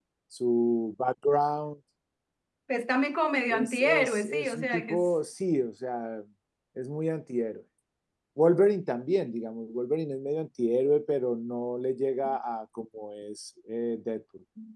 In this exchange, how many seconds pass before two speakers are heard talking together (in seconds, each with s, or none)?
3.5 s